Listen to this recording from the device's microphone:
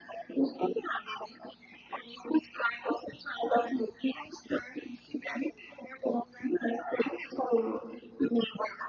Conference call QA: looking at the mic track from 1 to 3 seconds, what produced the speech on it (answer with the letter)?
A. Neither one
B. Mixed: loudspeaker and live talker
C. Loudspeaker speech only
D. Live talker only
C